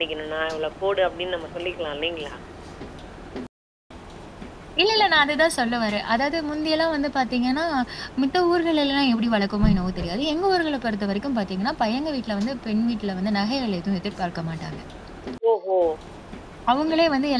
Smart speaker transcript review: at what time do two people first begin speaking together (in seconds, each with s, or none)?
none